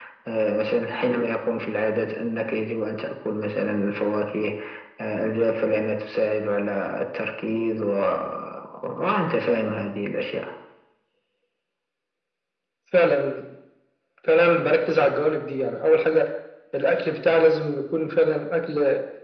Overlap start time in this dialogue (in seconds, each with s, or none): none